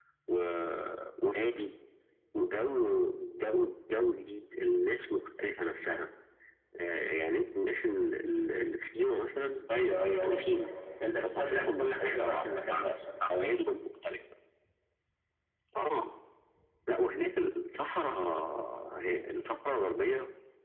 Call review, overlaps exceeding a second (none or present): present